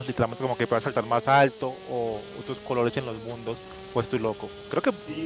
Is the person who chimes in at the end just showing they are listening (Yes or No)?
No